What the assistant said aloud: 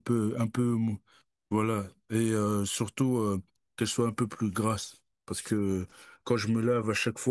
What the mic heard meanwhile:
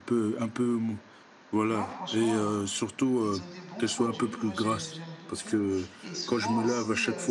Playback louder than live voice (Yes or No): Yes